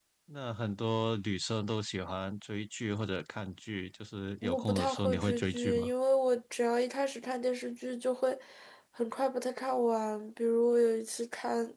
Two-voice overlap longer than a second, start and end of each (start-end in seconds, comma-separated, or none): 4.4-5.9